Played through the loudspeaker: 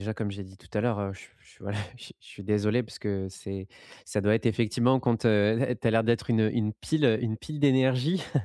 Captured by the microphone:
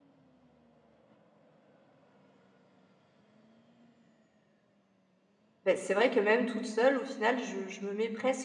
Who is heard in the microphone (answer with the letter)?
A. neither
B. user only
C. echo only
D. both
B